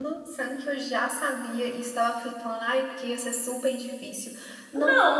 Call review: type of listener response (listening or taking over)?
taking over